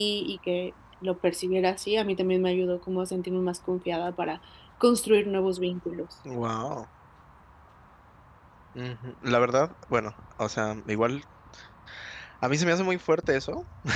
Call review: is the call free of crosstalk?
Yes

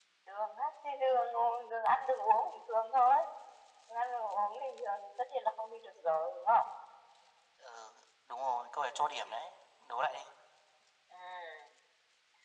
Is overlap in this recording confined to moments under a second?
Yes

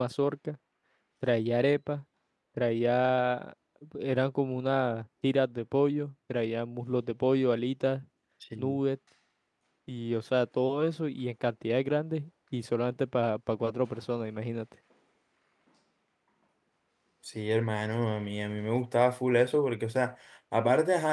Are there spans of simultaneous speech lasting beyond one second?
No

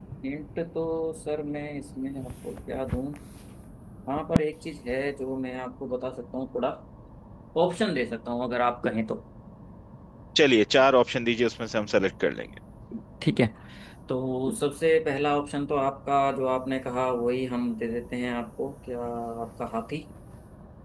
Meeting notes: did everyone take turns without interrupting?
Yes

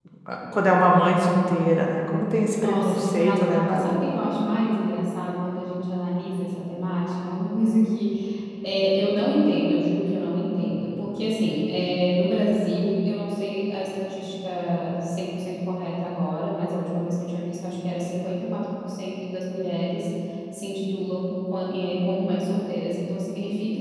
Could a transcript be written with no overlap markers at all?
No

